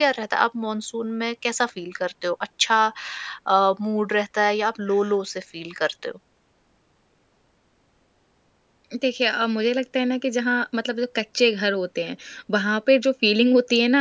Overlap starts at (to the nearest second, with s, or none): none